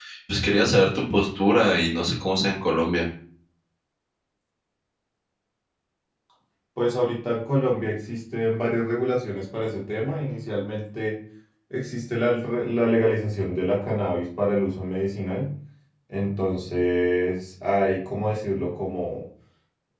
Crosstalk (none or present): none